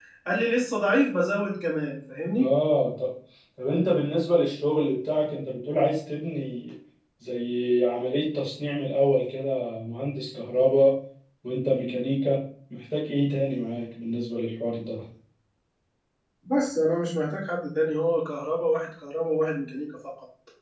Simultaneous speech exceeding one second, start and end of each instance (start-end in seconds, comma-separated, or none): none